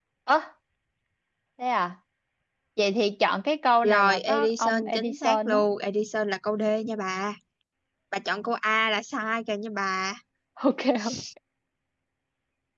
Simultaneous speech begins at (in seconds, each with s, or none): 3.8 s